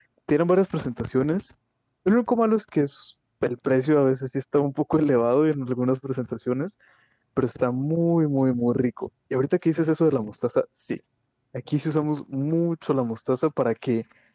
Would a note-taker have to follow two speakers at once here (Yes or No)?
No